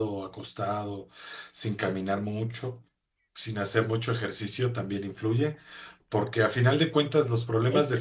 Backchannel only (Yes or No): Yes